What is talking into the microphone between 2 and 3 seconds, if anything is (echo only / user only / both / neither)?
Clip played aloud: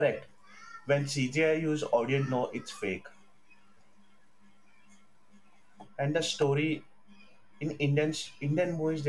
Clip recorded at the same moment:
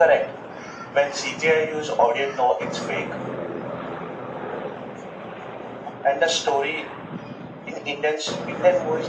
echo only